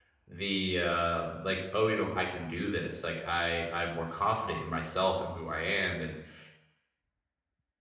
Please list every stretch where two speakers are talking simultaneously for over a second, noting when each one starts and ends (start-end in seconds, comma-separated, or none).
none